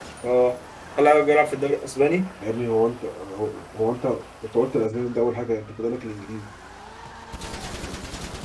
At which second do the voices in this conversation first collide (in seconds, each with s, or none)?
none